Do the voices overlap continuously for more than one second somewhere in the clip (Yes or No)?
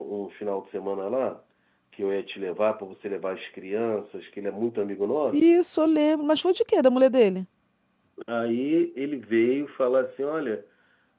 No